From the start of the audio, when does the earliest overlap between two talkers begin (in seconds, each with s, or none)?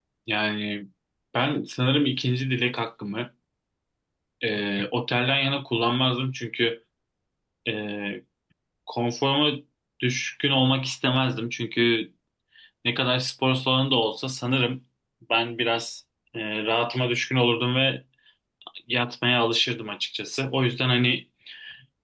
none